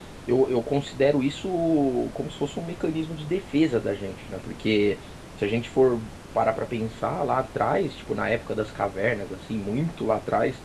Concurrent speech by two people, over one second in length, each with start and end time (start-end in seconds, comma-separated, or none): none